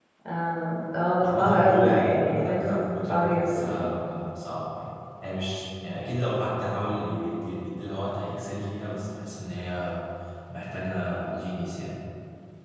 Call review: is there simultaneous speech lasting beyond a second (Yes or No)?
Yes